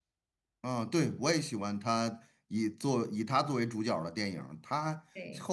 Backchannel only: Yes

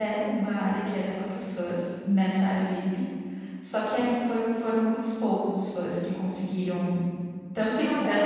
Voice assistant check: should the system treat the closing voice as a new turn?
No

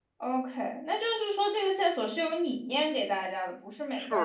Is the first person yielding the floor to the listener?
Yes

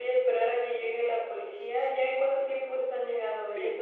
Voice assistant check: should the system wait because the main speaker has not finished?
No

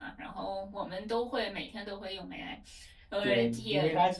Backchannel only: No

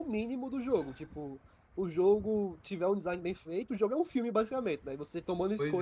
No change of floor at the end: Yes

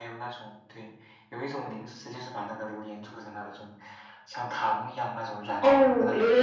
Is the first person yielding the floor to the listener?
Yes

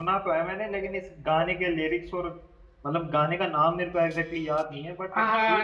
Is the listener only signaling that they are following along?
No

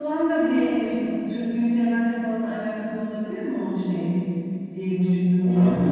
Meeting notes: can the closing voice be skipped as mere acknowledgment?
No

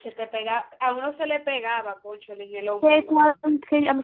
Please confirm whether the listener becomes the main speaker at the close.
Yes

